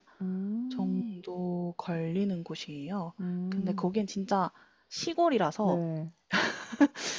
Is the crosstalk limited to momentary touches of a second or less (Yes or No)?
Yes